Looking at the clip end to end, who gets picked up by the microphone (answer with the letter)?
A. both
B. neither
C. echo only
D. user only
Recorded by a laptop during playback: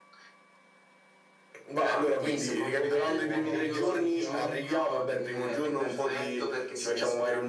A